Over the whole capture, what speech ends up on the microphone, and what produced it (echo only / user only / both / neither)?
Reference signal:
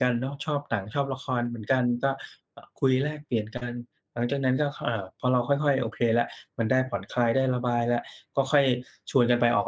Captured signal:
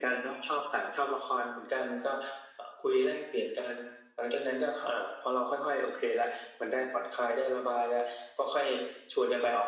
echo only